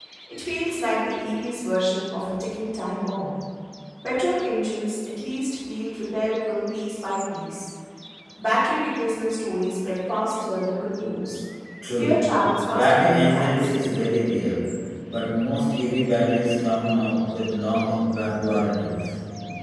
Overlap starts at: 12 s

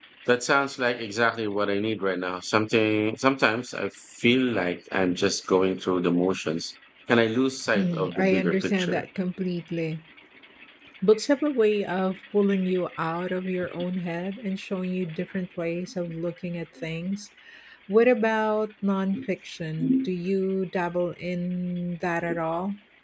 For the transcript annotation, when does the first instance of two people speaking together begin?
8 s

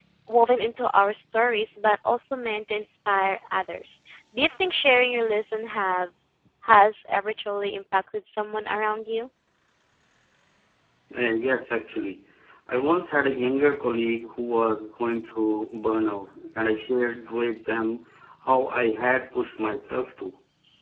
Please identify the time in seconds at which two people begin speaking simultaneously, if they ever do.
none

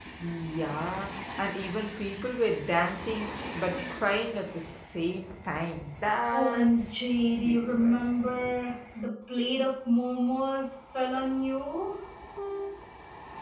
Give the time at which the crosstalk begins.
6 s

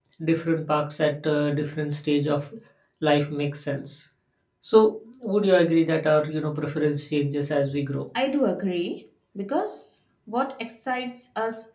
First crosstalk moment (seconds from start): none

